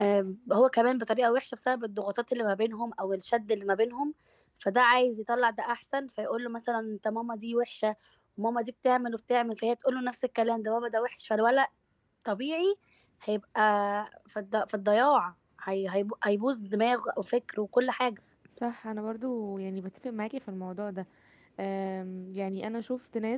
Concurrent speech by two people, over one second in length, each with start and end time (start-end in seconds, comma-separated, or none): none